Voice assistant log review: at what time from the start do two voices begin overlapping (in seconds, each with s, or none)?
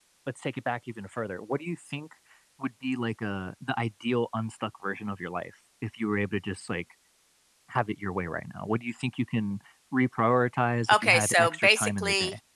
10.9 s